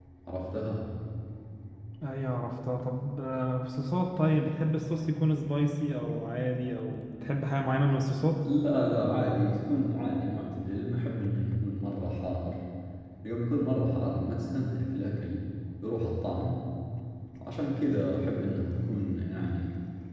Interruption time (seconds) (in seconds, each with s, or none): none